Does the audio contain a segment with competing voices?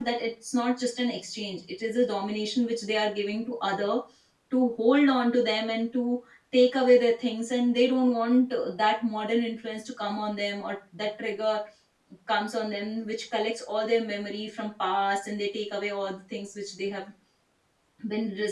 No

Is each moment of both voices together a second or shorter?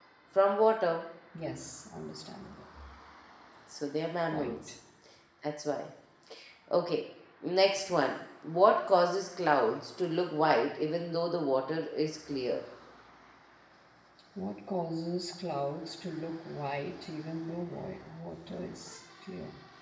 Yes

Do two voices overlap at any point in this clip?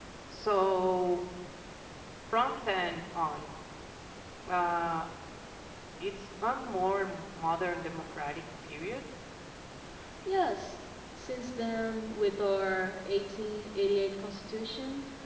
No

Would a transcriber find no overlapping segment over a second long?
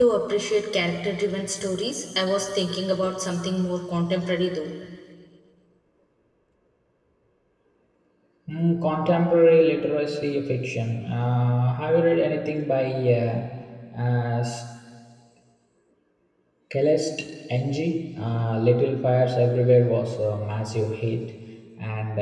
Yes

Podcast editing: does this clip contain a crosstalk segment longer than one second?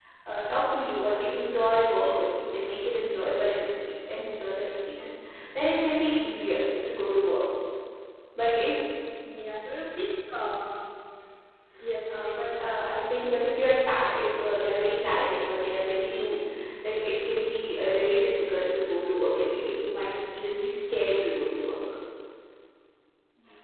No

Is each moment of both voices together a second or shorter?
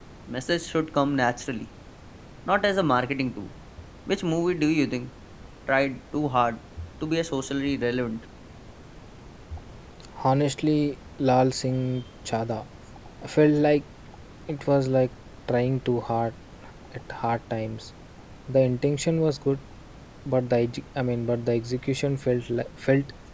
Yes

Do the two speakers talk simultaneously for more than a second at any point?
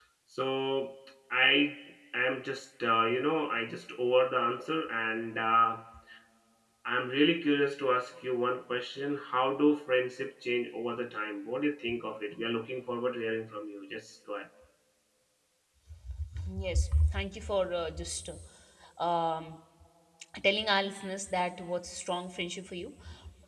No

